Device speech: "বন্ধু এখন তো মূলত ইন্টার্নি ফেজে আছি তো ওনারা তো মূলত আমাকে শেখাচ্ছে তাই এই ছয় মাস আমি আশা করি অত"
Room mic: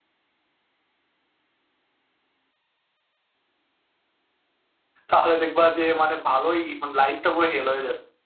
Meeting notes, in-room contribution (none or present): present